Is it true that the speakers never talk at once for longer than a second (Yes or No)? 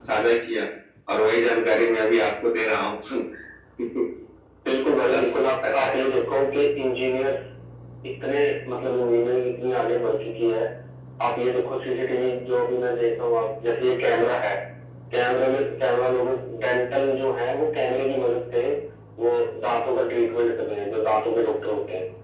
Yes